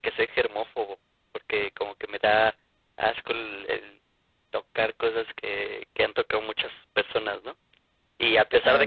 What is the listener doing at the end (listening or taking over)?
listening